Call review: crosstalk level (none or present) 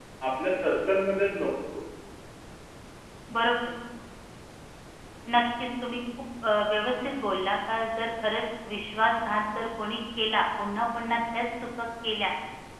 none